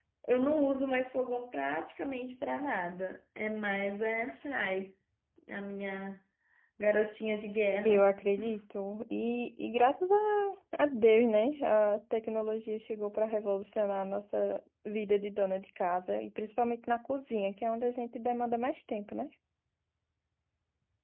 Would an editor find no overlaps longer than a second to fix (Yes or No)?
Yes